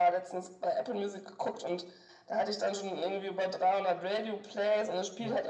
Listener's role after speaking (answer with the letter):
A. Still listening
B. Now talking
A